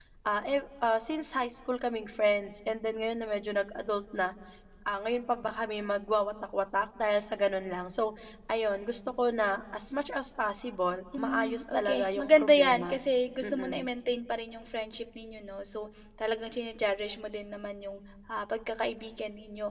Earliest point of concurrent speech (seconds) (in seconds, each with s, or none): 11.2 s